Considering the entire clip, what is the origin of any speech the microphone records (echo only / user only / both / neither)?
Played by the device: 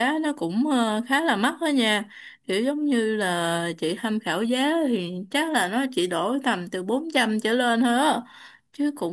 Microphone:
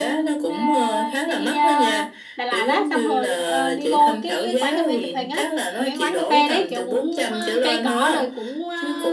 both